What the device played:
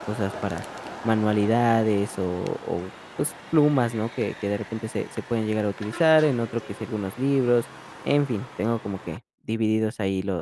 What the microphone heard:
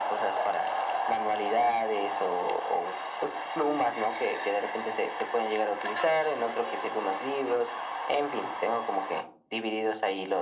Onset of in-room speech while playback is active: none

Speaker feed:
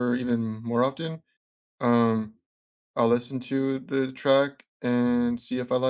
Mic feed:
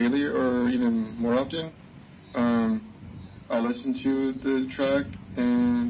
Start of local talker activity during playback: none

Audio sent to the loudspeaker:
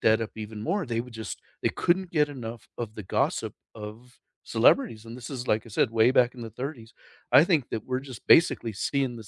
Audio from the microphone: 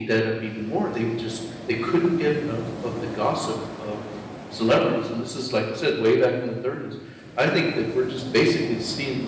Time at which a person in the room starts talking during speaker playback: none

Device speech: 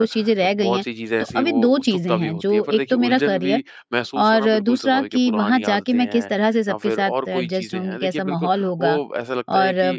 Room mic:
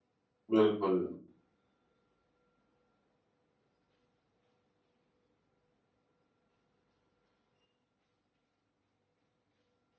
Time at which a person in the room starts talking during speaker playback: 0.5 s

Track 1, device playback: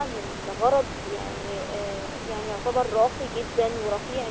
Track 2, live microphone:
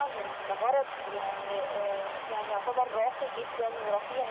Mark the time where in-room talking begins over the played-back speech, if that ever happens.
none

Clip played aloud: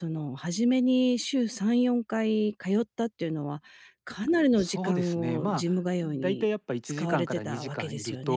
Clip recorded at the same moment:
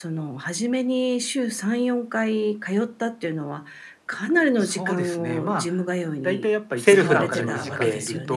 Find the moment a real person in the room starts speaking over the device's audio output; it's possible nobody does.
6.8 s

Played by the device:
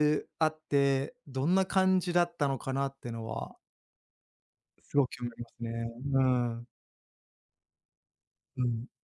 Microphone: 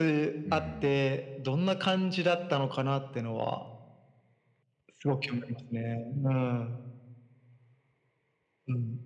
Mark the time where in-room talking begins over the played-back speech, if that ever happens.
0.4 s

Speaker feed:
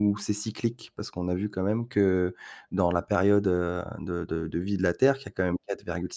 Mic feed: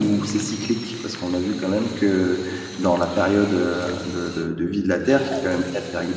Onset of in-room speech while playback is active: none

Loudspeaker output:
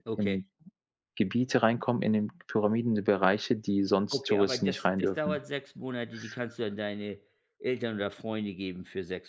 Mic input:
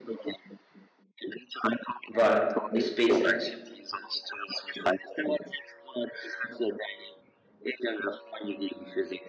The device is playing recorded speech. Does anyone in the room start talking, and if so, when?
2.1 s

